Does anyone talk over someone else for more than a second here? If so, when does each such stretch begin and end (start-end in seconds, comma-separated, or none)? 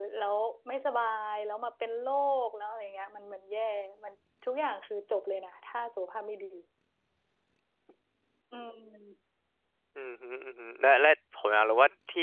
none